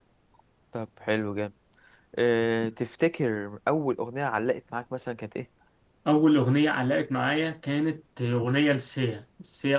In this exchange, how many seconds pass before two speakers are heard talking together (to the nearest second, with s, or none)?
none